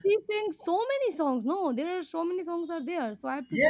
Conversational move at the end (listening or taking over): taking over